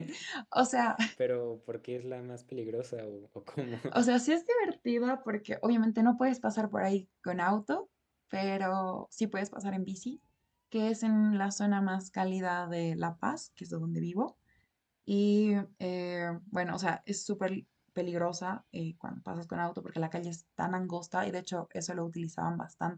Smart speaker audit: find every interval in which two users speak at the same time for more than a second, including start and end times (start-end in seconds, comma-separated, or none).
none